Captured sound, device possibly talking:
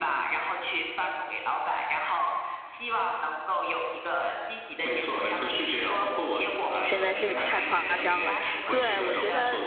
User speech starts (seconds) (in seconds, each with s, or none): 6.8 s